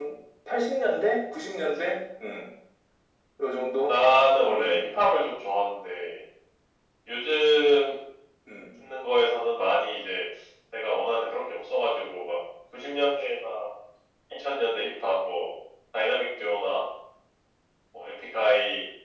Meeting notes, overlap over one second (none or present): none